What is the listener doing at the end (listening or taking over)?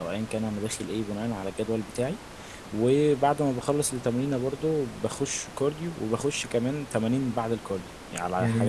taking over